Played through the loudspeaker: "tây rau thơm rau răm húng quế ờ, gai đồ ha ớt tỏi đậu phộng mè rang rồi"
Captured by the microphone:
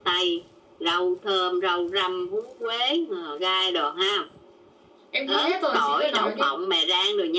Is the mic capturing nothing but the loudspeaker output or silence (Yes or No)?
No